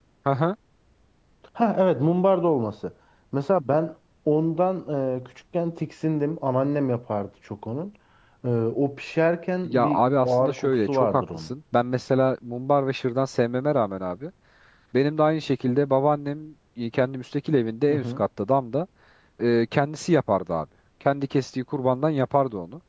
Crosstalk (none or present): present